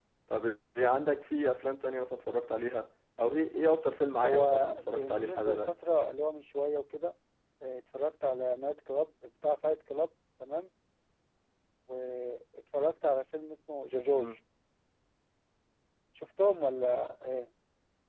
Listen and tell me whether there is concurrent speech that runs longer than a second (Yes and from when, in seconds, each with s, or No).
Yes, from 4.2 s